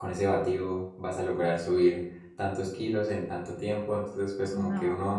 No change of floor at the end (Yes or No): Yes